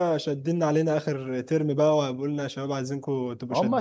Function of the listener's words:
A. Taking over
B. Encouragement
A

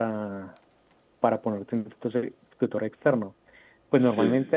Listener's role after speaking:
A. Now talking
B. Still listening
B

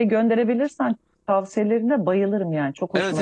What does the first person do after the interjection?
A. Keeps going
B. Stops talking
B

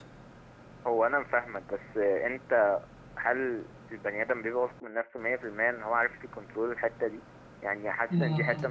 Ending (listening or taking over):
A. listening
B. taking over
A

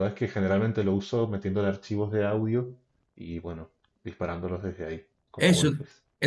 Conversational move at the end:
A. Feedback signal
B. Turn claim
B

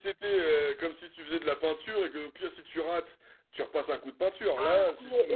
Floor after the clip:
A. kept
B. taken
B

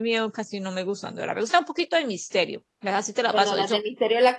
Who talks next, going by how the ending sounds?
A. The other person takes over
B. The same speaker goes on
A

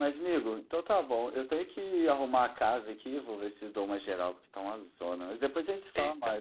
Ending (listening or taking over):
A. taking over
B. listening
A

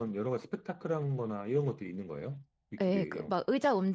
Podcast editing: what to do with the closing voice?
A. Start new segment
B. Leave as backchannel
A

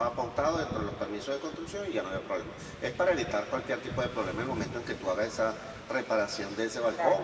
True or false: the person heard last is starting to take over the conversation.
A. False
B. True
B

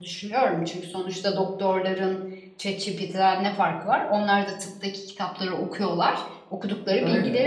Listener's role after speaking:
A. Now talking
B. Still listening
B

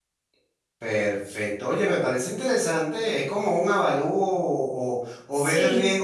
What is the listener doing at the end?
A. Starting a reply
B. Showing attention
B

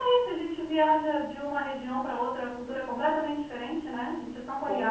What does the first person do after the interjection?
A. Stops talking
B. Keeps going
A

